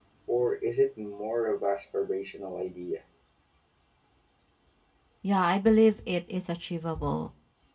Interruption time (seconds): none

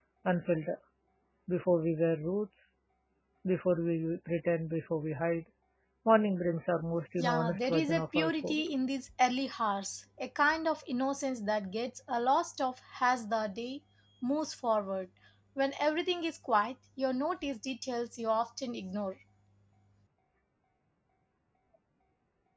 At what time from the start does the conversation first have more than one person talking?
7.2 s

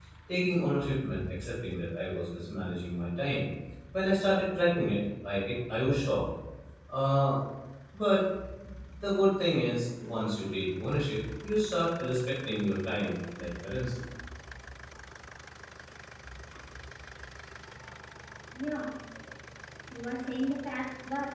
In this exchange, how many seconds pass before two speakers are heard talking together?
none

